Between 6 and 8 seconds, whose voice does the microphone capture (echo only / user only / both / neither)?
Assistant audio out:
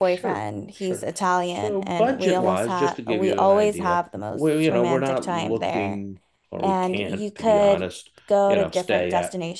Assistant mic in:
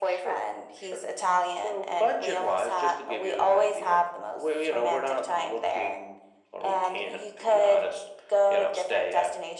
echo only